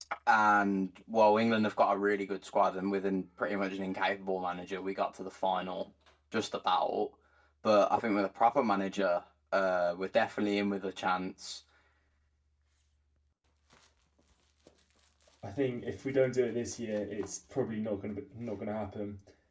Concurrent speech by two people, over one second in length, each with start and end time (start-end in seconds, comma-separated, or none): none